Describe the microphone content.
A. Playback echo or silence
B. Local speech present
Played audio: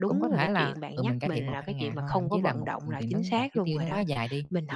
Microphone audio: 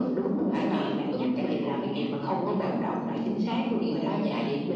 A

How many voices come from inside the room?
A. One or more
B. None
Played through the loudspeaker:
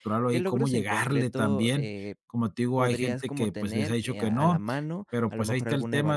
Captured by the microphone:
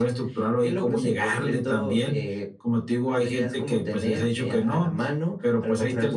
B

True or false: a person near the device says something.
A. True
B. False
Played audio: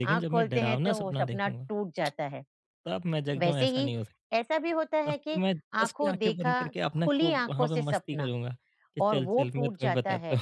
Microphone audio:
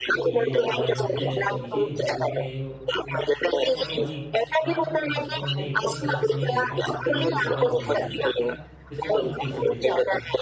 A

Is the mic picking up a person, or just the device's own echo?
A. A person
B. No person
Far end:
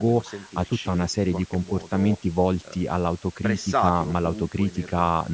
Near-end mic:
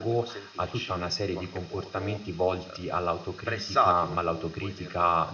B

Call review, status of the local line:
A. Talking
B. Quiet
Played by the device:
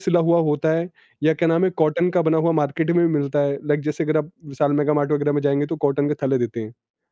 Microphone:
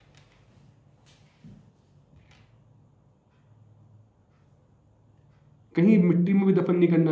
A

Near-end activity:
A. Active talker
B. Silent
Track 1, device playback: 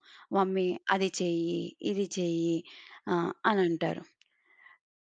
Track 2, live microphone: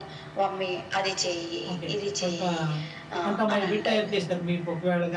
A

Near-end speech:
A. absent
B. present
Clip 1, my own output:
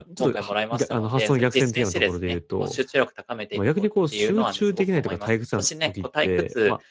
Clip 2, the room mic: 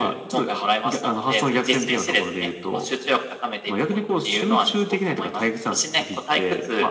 A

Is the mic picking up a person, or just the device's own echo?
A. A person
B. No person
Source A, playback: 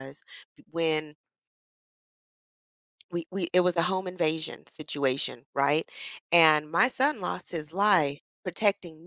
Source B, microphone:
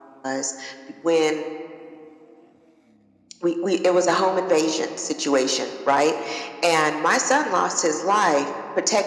B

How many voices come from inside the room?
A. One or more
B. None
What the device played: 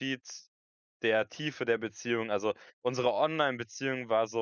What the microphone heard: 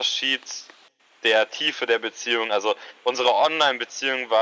B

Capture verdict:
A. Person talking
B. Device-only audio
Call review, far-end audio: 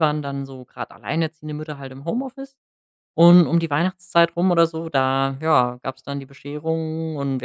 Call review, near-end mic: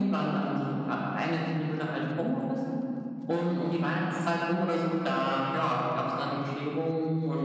B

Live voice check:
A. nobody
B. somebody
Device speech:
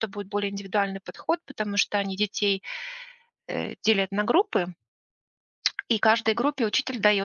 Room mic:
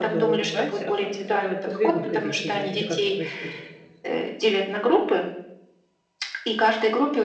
B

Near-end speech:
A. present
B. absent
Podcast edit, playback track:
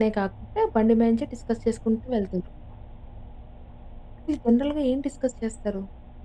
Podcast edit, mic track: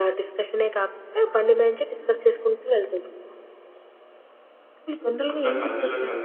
A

